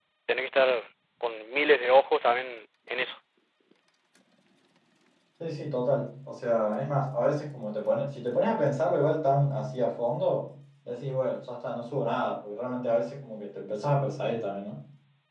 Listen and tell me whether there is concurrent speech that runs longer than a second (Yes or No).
No